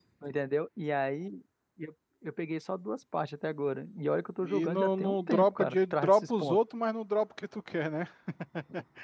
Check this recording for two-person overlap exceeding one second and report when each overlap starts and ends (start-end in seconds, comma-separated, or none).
4.4-6.6